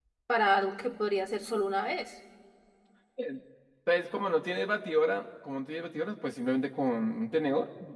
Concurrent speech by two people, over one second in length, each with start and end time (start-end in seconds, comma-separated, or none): none